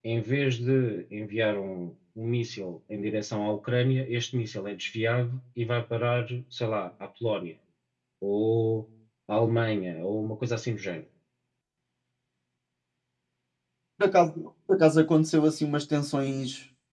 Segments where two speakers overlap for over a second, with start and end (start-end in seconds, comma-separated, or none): none